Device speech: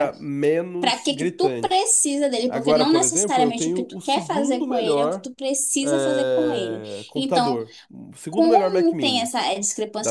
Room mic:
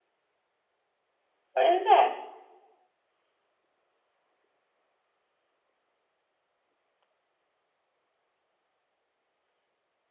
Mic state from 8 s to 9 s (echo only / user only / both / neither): neither